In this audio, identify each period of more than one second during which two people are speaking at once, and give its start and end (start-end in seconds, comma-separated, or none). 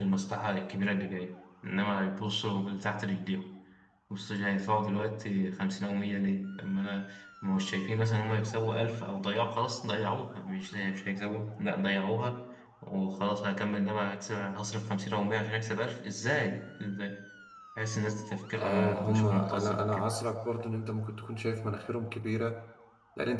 18.6-20.0